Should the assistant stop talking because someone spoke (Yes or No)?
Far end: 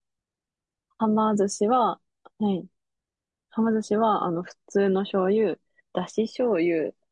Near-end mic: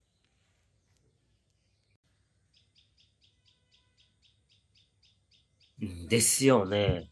Yes